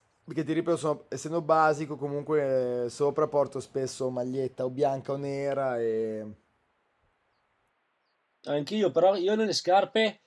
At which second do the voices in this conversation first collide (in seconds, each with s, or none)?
none